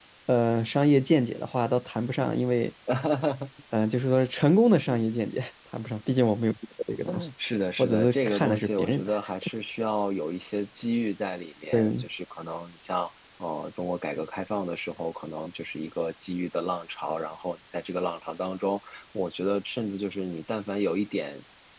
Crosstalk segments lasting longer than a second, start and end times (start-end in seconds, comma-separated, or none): 7.8-9.1